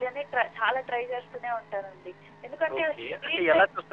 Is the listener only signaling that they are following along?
No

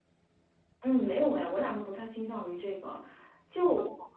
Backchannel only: Yes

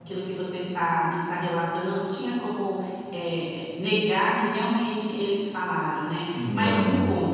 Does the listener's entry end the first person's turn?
No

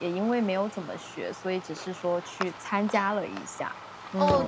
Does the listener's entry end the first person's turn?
Yes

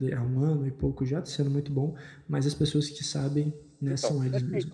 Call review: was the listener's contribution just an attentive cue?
No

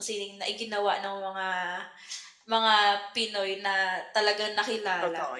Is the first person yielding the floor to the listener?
Yes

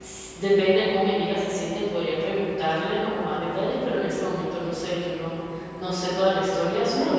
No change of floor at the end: Yes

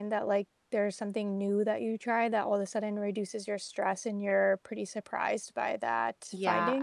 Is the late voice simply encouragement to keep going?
No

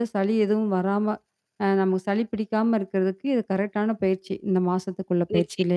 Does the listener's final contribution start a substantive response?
Yes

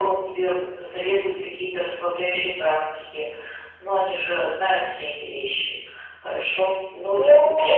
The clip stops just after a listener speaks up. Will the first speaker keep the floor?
Yes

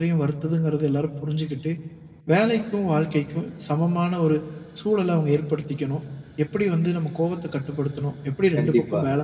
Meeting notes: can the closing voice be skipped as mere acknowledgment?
Yes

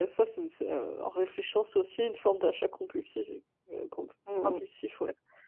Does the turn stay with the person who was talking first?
No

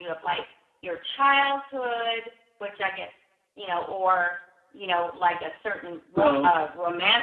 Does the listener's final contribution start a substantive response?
No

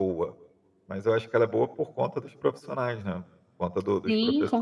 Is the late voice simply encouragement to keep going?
No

